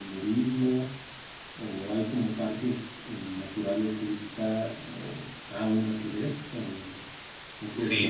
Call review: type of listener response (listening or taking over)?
taking over